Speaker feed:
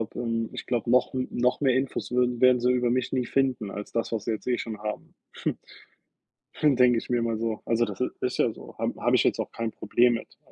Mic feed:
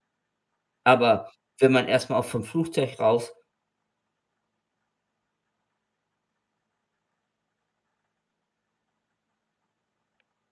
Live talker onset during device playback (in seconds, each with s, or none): 0.8 s